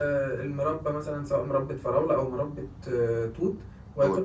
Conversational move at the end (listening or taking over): listening